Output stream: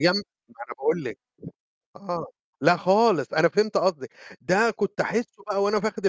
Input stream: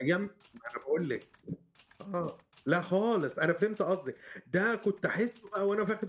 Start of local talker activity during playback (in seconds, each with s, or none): none